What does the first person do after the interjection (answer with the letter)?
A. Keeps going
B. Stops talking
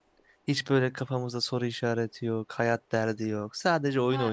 B